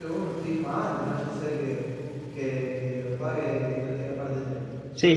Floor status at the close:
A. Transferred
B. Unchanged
B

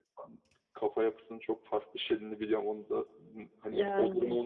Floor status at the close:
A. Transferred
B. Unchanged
B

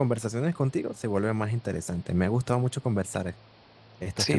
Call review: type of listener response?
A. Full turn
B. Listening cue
A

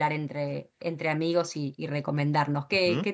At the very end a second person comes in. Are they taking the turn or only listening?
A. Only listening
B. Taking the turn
A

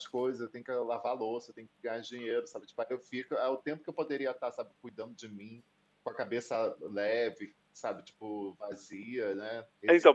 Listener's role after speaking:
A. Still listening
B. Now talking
B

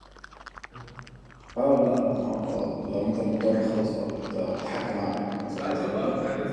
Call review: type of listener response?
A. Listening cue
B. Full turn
B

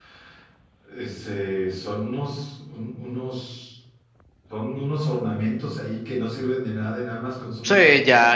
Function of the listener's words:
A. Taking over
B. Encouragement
A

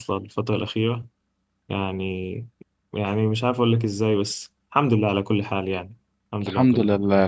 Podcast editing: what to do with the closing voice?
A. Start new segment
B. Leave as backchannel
A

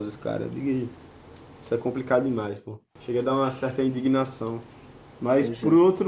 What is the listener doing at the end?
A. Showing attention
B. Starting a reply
A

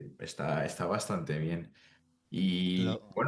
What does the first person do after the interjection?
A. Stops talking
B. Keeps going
B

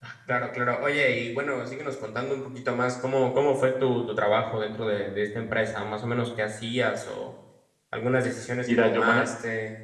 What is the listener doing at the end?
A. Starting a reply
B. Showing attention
A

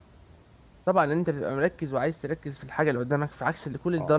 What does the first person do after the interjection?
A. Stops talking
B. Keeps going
A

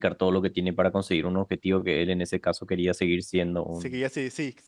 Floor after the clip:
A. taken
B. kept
A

